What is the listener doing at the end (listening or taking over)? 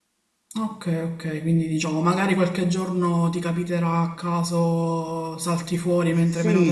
taking over